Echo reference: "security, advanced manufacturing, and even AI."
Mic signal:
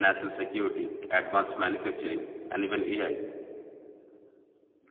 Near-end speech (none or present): none